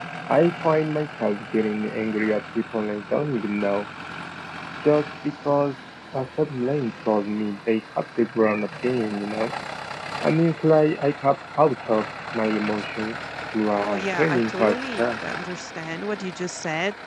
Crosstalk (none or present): present